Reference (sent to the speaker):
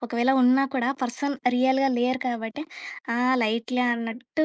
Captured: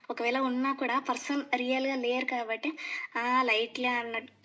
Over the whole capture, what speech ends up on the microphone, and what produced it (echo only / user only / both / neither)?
echo only